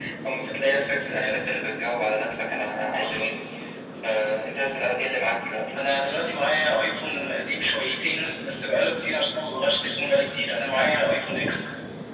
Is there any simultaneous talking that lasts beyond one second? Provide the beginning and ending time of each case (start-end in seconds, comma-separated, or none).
none